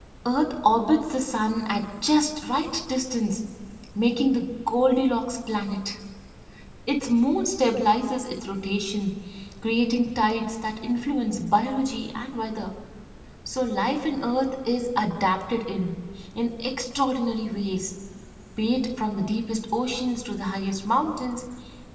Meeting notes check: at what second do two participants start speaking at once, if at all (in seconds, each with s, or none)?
none